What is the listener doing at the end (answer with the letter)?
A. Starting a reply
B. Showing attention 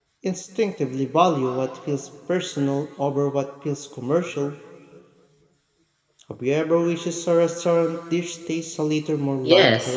A